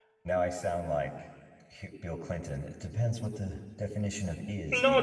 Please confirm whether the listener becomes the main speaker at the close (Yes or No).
Yes